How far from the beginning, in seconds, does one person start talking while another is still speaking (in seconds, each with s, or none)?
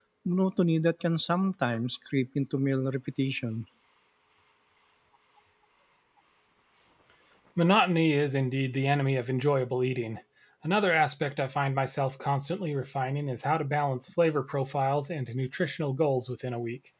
none